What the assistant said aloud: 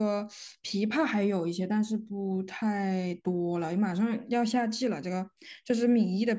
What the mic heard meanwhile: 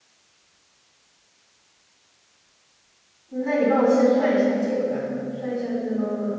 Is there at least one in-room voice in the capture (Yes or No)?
Yes